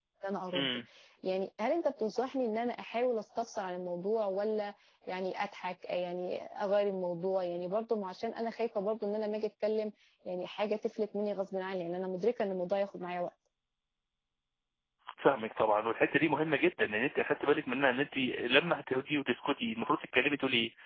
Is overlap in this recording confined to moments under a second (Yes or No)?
Yes